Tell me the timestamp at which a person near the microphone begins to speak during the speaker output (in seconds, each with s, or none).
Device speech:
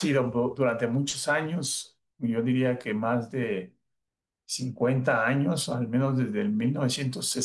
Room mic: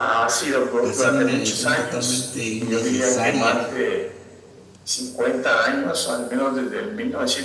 0.8 s